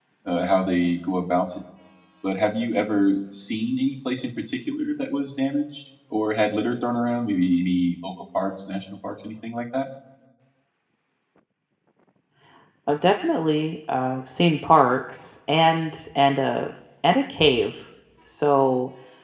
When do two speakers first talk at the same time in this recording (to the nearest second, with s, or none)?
none